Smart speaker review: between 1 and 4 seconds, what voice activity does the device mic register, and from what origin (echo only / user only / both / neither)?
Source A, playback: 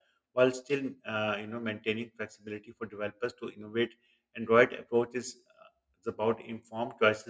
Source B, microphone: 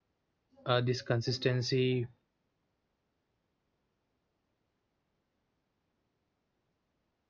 user only